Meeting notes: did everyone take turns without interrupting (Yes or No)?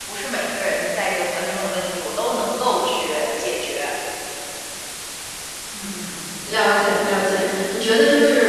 Yes